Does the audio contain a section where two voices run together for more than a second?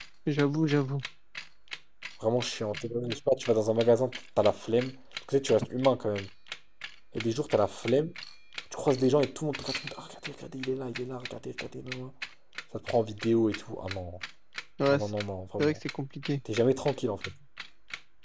No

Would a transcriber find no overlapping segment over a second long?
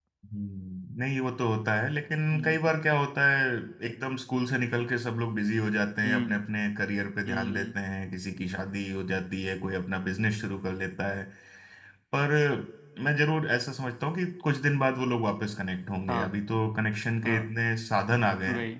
Yes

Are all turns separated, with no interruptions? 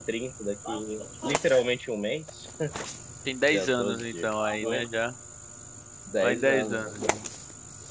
No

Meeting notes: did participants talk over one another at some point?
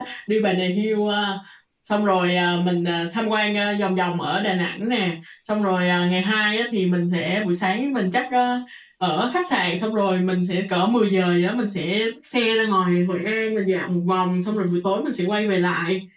No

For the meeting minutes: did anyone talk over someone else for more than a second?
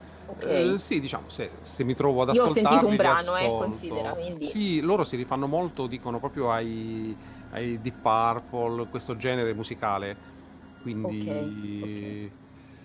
Yes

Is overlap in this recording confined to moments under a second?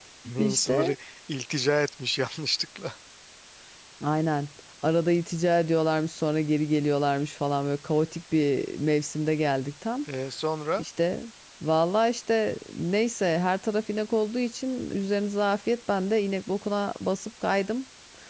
Yes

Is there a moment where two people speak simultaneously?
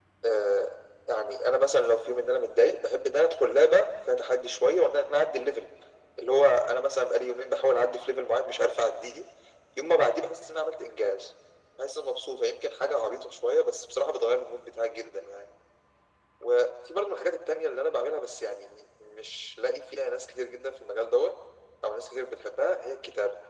No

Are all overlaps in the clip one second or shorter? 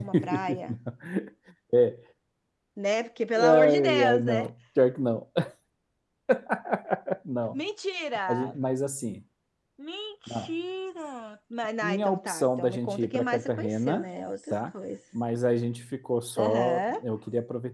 No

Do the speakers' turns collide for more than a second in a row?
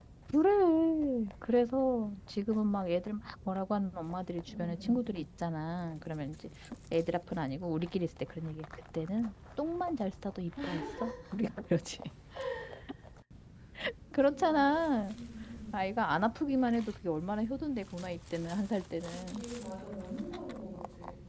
No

